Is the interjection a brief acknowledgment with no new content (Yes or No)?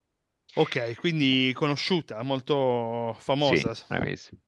No